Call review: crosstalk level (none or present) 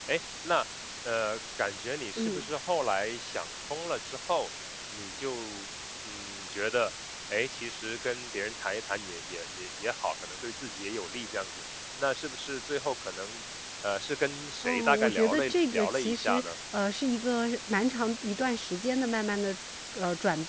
present